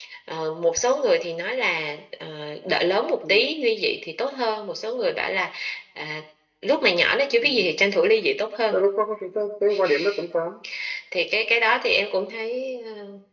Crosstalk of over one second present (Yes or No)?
No